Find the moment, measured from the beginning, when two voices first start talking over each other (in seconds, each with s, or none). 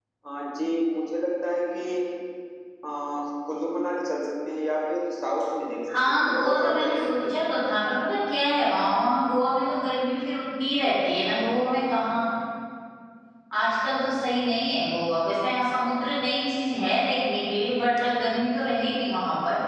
5.9 s